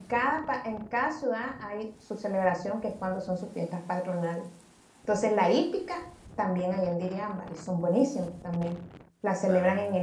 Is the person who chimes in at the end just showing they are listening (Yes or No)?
Yes